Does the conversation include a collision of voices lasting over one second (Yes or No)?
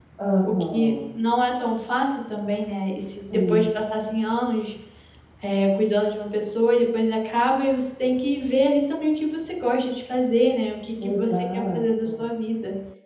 Yes